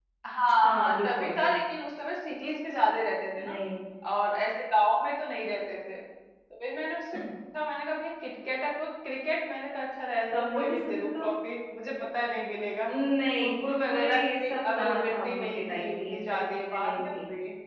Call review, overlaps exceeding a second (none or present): present